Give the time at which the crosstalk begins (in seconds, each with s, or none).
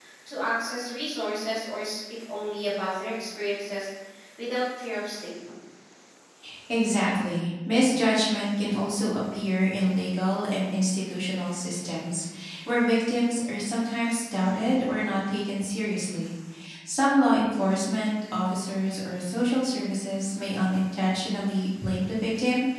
none